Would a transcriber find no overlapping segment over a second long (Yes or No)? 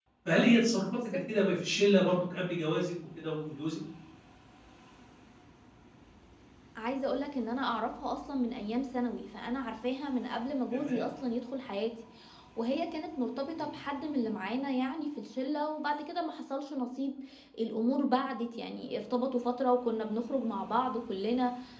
Yes